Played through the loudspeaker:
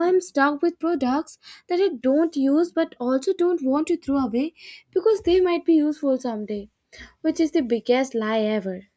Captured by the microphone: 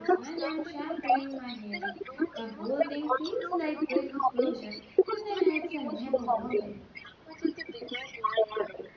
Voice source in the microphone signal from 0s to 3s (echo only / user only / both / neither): both